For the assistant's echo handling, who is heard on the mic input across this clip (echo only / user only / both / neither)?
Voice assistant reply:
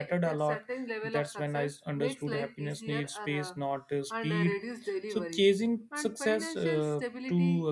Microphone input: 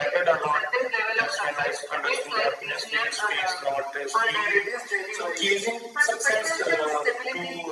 echo only